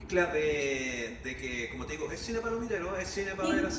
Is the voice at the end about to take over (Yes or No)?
No